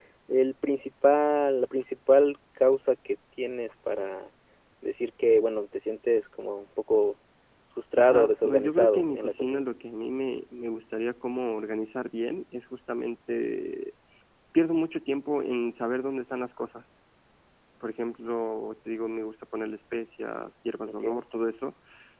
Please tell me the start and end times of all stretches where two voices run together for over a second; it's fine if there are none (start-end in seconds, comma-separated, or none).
8.0-9.7